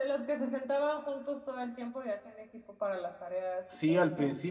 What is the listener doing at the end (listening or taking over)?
taking over